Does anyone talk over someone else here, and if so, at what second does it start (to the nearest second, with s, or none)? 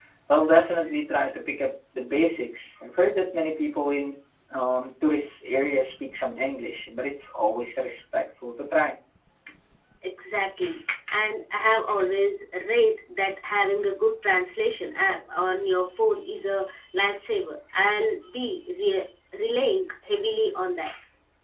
none